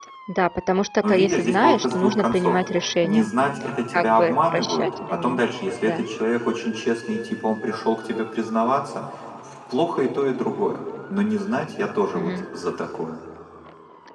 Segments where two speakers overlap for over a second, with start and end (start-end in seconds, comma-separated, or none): 1.0-2.6, 3.9-5.4